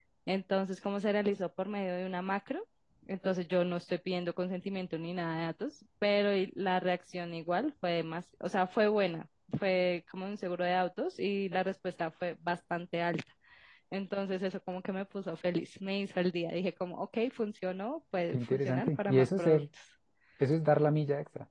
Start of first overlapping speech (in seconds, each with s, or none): 18.3 s